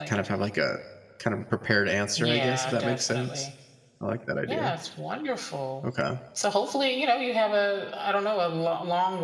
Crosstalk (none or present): present